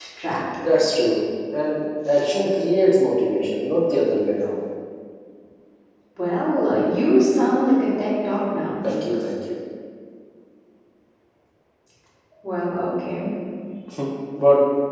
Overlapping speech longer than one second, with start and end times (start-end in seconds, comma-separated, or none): none